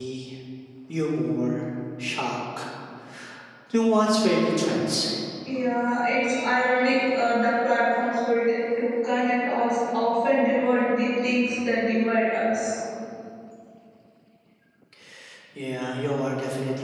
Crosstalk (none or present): none